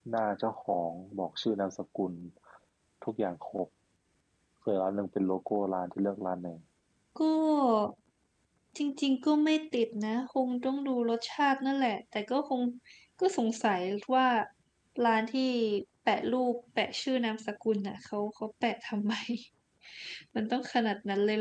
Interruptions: none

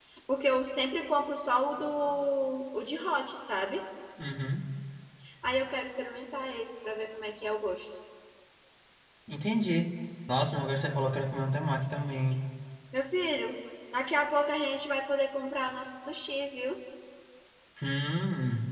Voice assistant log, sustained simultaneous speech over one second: none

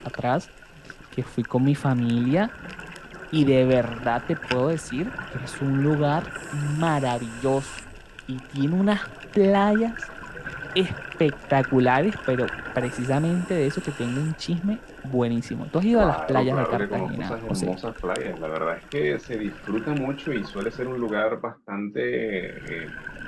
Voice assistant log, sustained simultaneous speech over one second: present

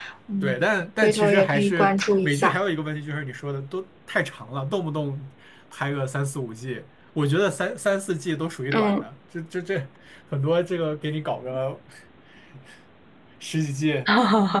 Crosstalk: present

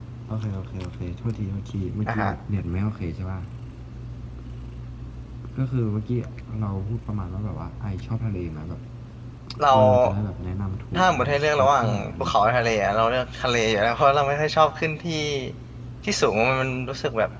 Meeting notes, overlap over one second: present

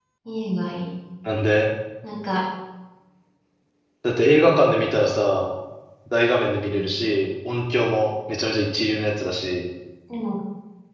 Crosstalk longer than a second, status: none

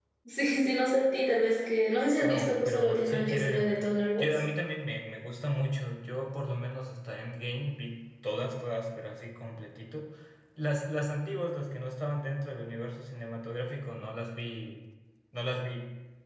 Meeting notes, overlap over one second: present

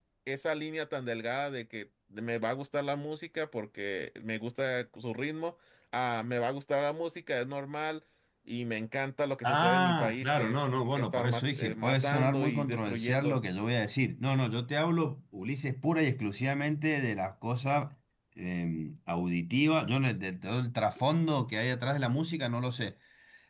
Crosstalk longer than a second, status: present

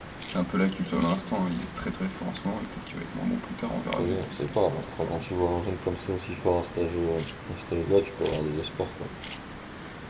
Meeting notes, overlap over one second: present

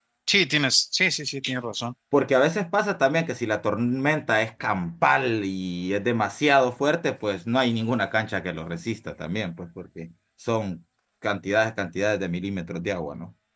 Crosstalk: none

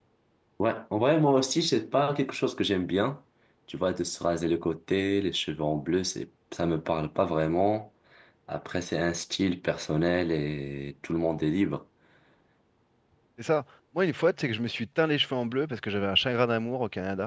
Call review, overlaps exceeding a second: none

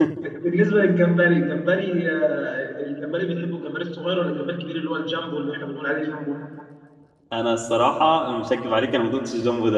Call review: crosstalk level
none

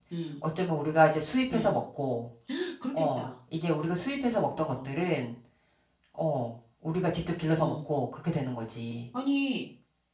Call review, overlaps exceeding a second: none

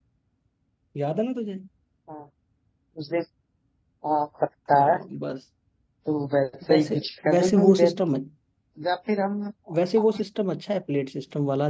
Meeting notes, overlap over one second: present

